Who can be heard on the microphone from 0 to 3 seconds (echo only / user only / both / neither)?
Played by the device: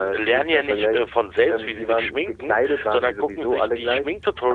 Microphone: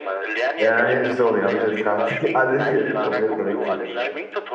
both